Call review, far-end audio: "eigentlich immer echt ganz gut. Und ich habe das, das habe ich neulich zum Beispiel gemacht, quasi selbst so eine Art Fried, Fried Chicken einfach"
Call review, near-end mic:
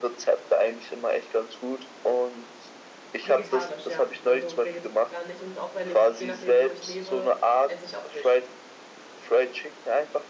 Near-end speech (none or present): present